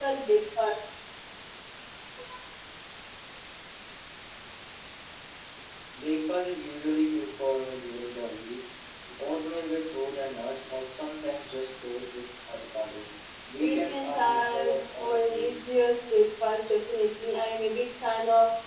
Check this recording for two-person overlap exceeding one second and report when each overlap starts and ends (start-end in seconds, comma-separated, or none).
13.6-15.6